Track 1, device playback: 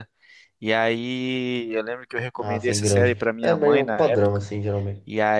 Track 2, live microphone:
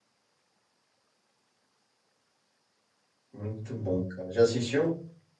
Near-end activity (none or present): present